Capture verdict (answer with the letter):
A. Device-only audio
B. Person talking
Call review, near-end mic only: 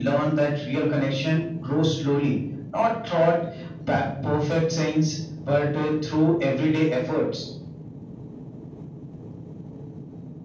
A